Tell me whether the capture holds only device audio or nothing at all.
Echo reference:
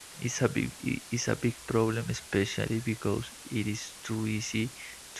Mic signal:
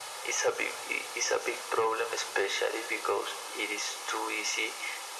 Yes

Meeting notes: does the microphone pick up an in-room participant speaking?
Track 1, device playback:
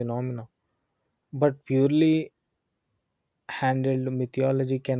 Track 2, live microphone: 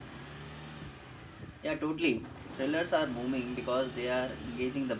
Yes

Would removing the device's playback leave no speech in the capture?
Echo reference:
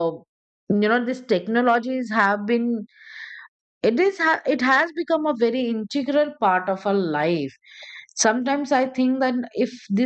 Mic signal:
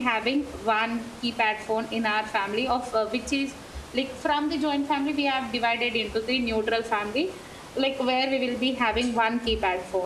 No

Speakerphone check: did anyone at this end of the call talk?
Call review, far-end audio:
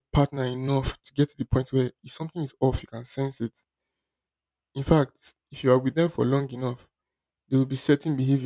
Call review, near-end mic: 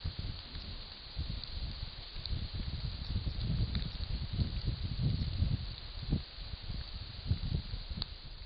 No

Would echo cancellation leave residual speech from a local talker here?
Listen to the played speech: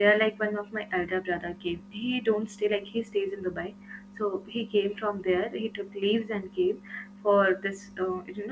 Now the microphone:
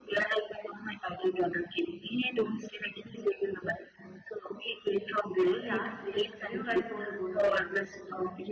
Yes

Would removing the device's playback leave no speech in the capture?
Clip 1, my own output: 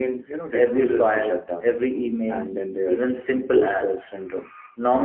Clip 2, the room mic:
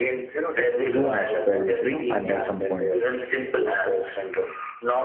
No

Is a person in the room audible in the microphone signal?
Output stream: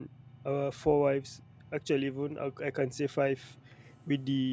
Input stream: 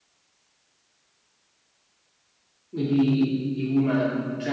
Yes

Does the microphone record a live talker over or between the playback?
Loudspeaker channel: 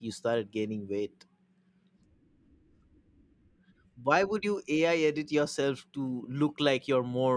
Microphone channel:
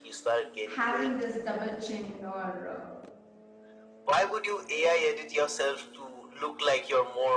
Yes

